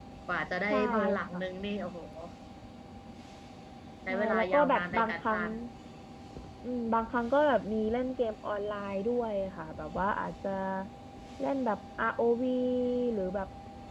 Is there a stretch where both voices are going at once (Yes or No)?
Yes